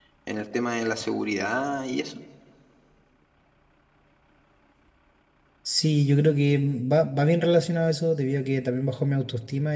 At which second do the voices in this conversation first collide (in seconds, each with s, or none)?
none